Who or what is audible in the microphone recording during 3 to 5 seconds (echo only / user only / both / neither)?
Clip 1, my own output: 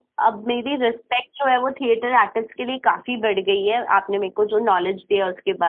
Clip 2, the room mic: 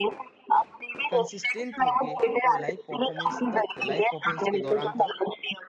both